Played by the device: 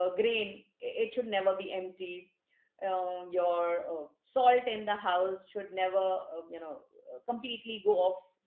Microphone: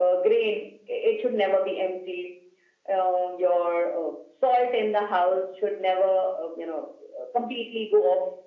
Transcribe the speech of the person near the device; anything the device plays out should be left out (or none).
none